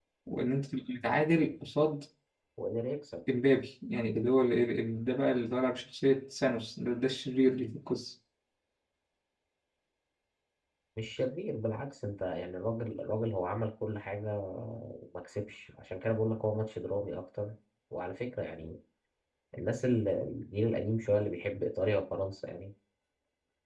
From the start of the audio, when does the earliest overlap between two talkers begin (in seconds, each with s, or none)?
none